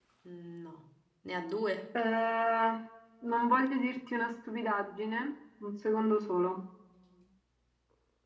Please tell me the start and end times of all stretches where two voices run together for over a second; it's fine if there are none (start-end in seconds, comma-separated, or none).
none